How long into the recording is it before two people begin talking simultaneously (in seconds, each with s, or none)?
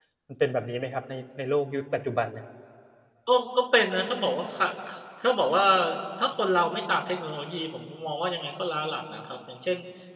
none